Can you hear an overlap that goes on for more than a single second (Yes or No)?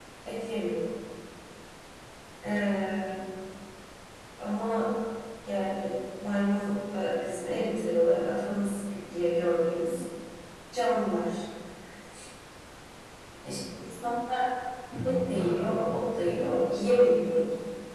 Yes